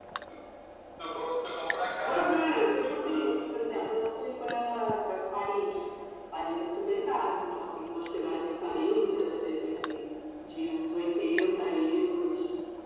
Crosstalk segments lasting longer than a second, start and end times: 2.0-3.3

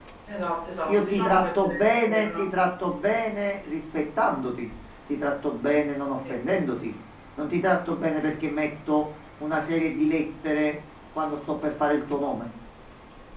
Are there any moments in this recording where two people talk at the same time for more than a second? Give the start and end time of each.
0.9-2.4

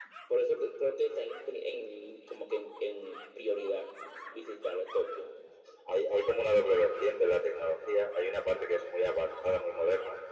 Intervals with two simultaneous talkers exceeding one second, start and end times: none

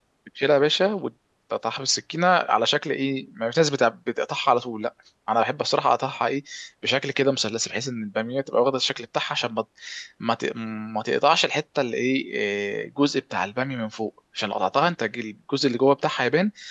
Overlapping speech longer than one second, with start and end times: none

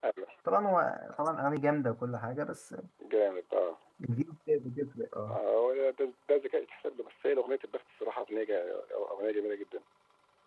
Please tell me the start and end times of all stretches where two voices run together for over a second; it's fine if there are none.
none

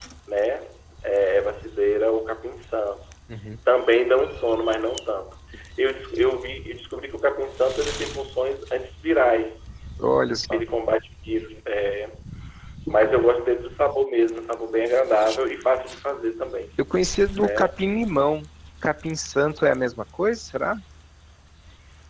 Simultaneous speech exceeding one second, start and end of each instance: none

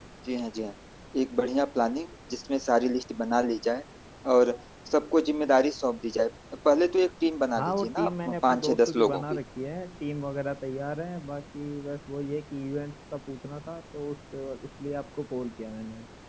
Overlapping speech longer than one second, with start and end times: 7.6-9.4

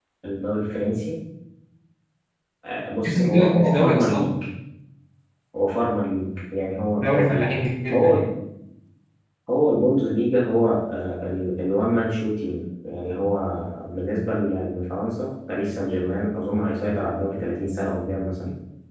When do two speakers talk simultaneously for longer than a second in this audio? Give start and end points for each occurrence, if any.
3.0-4.3

